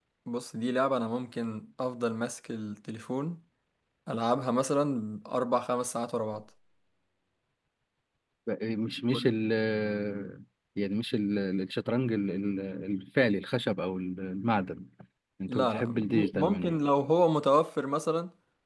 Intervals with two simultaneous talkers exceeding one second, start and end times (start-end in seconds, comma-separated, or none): 15.5-16.8